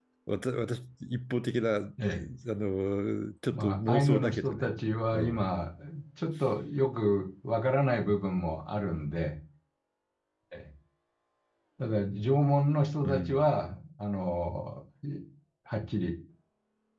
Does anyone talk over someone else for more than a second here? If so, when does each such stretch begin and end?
3.5-4.8

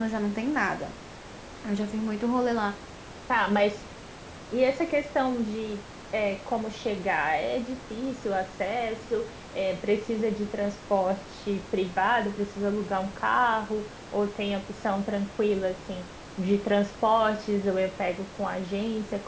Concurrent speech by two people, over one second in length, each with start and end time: none

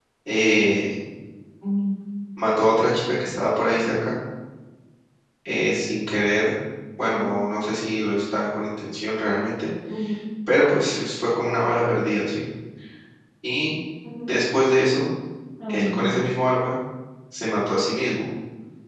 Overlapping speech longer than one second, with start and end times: none

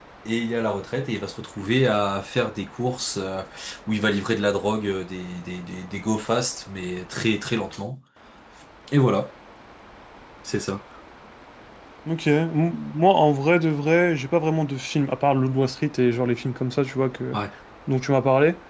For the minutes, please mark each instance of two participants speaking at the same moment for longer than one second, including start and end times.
none

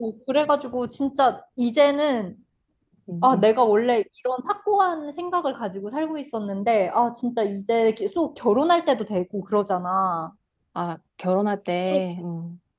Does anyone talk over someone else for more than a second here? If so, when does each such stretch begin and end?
none

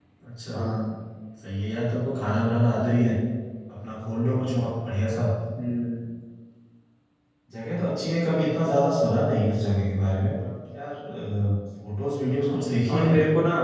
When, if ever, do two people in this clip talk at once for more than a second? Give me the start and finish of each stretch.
none

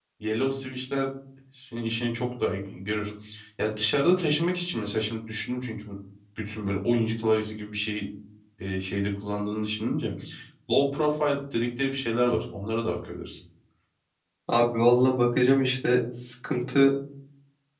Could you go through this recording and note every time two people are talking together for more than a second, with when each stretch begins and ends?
none

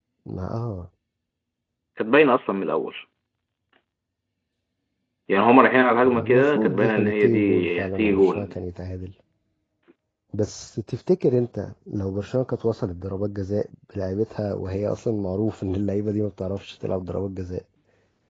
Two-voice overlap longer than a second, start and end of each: 6.1-8.6

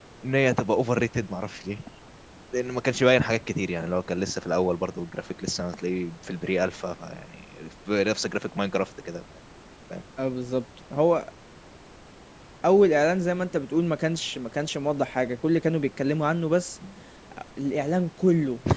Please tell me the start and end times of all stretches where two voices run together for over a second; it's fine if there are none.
none

